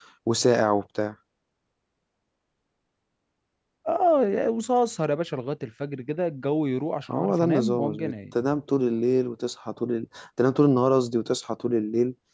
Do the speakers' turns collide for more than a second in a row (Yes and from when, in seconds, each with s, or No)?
Yes, from 7.1 s